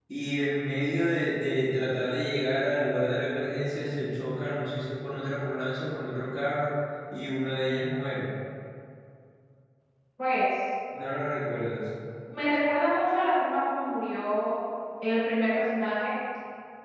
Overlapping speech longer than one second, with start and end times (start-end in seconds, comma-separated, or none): none